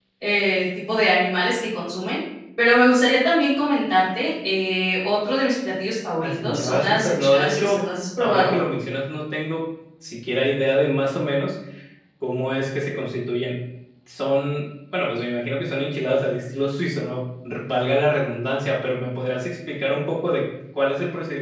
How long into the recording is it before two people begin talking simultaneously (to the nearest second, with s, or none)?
6 s